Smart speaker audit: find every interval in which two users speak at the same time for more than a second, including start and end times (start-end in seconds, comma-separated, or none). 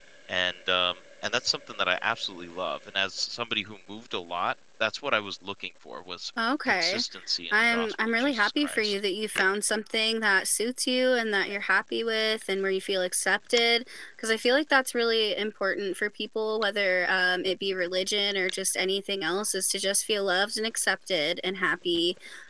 7.5-9.0